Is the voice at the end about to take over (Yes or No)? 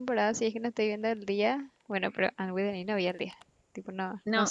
Yes